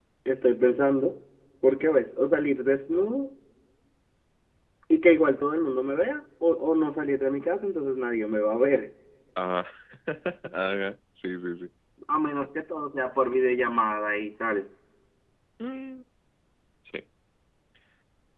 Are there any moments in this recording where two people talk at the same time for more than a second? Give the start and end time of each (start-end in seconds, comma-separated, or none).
none